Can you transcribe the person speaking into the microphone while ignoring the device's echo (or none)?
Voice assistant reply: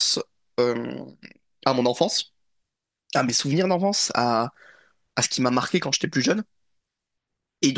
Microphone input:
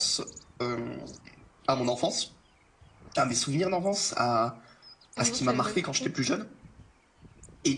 Ah non, je savais pas du tout.